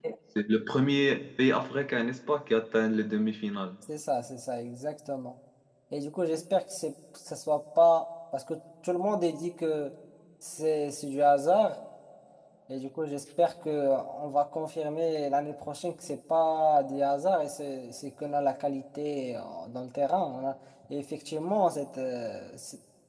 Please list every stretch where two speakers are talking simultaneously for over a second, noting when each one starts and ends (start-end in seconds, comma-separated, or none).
none